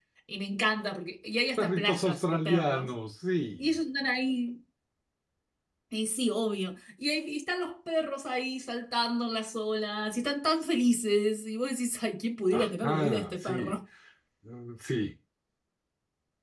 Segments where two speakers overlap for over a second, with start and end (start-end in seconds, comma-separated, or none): 1.6-2.9, 12.5-13.8